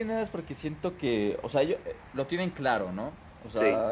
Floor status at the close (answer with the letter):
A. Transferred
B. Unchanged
B